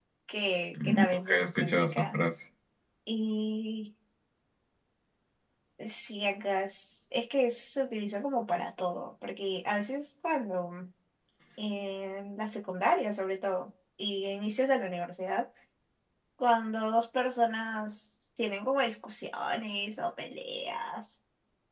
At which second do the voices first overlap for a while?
0.8 s

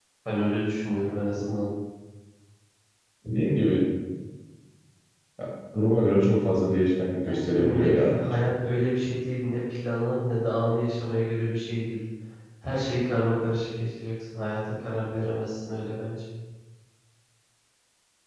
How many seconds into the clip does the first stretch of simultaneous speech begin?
7.2 s

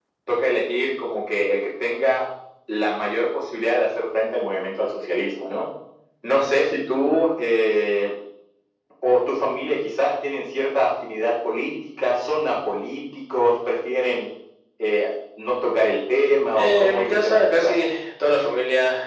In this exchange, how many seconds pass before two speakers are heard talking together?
16.6 s

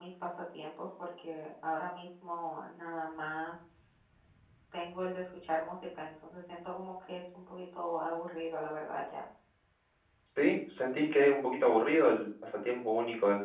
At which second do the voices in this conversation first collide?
none

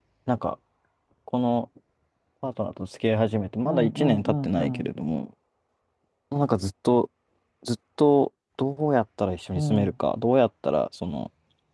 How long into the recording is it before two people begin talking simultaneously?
3.6 s

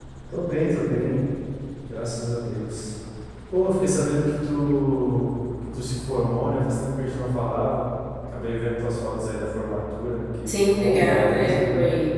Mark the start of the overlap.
10.5 s

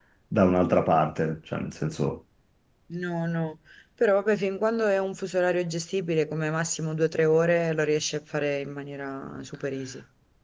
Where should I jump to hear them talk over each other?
none

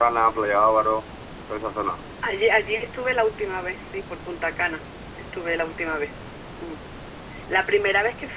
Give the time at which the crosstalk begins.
none

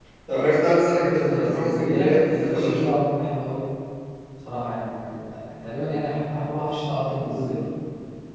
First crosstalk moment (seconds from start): 1.0 s

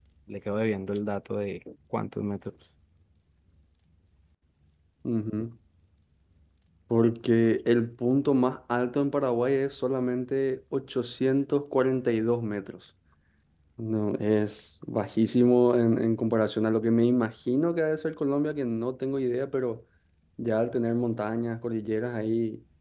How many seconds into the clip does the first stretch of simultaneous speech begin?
none

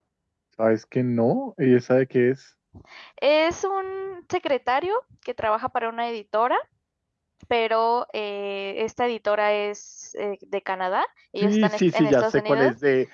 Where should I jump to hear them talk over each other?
11.4 s

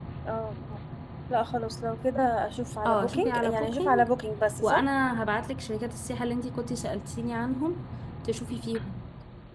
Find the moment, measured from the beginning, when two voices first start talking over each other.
2.9 s

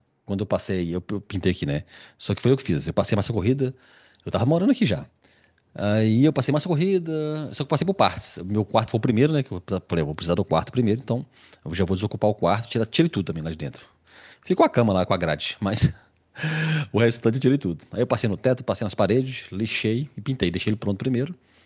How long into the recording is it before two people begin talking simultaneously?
none

